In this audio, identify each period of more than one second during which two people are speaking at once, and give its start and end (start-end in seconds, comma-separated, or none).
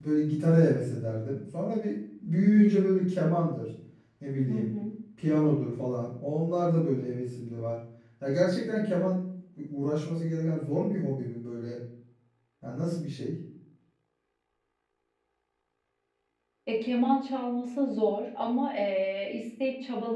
none